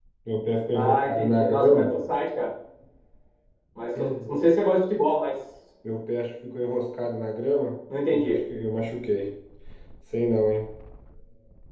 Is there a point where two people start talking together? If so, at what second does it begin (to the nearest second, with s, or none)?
1 s